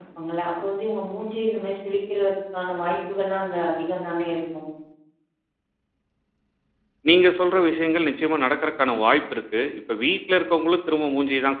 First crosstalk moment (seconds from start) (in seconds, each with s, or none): none